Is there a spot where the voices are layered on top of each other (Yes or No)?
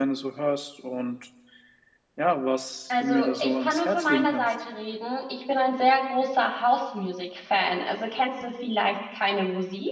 Yes